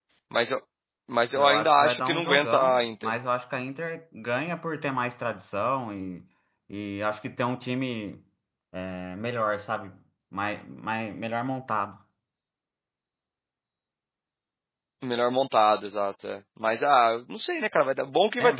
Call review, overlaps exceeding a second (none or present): present